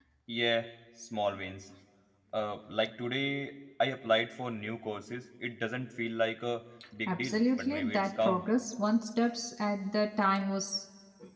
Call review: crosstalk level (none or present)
present